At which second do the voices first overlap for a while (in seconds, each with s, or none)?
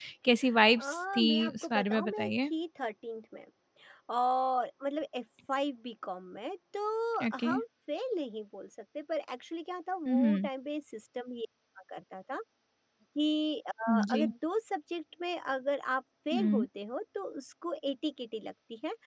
0.8 s